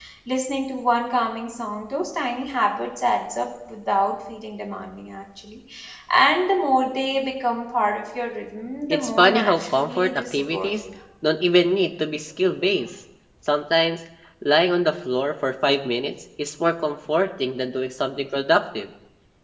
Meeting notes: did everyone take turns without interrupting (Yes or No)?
No